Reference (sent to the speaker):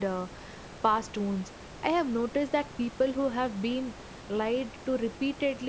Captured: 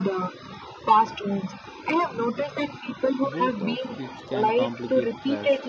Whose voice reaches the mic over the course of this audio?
both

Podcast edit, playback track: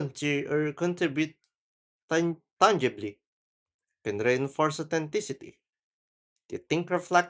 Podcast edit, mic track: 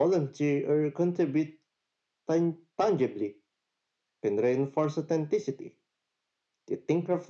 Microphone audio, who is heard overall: echo only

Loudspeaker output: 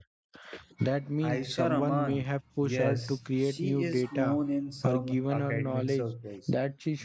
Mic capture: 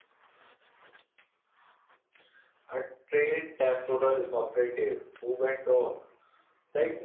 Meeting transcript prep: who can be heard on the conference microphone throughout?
user only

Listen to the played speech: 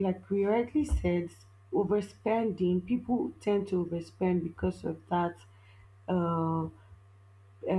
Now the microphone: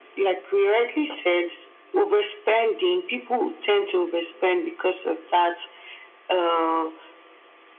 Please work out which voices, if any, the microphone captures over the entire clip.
echo only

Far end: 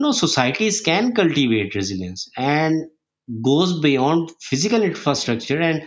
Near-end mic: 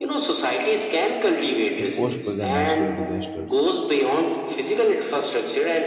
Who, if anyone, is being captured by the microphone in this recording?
both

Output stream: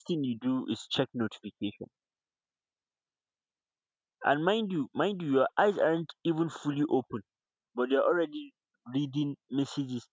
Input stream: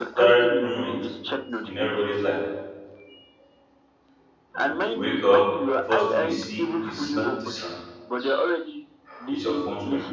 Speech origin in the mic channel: both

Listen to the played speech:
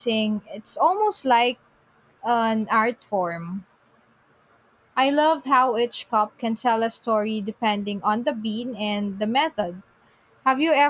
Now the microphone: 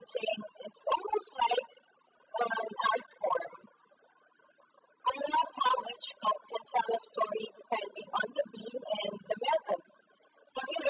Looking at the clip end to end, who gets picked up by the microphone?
echo only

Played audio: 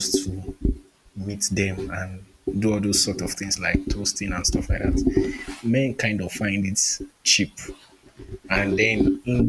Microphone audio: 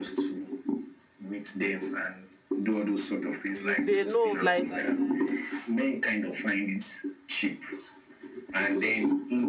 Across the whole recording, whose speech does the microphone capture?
both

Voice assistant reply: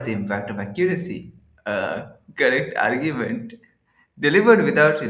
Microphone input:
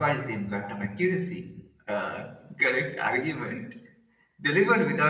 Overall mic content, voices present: echo only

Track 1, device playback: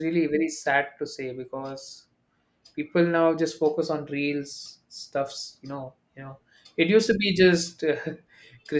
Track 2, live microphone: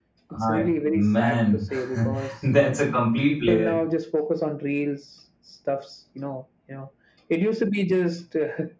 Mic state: both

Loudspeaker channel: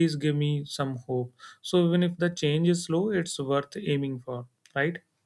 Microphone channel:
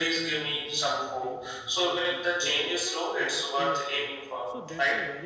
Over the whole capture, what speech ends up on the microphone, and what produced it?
both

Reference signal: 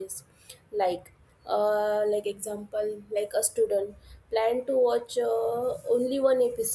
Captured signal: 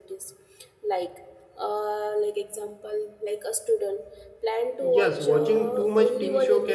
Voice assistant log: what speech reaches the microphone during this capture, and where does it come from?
both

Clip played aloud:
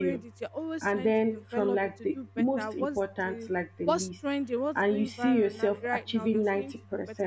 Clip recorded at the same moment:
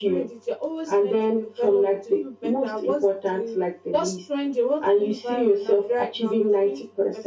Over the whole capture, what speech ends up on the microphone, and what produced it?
echo only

